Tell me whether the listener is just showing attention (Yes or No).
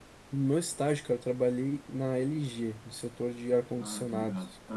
No